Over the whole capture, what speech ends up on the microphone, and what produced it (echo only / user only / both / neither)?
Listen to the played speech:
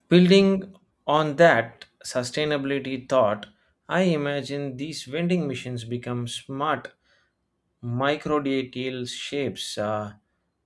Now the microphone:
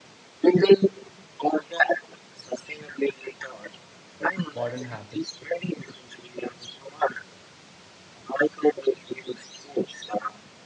both